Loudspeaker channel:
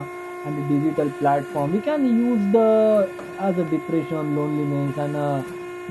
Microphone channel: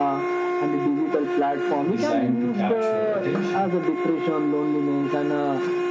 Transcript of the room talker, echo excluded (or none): designed to capture attention.